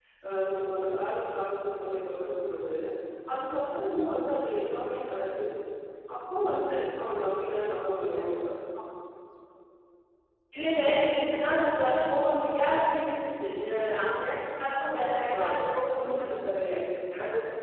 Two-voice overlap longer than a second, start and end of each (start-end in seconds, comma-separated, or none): none